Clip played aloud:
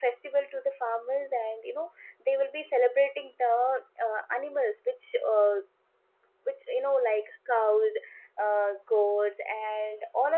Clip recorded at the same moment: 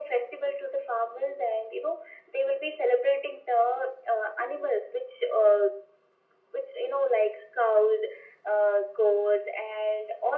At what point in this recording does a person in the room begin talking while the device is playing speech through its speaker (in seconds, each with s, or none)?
none